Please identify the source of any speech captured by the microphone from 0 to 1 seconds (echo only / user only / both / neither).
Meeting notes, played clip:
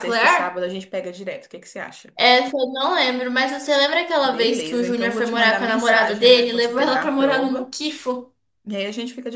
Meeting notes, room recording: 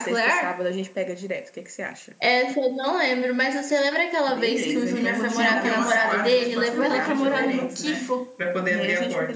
echo only